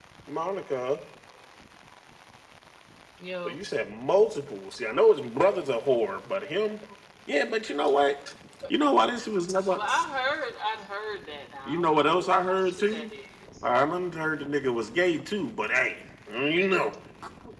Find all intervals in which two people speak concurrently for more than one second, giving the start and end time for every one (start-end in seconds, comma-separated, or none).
11.7-13.1